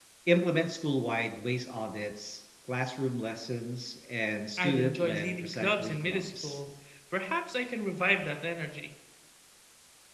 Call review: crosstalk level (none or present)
present